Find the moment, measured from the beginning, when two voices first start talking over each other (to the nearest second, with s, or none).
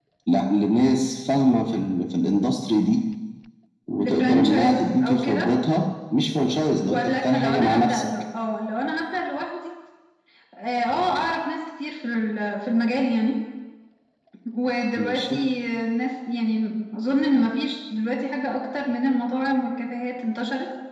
4 s